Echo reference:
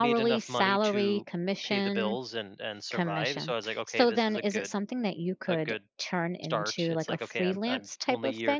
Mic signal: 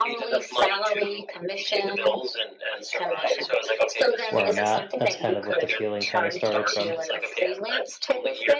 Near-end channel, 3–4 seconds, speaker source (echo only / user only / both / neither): echo only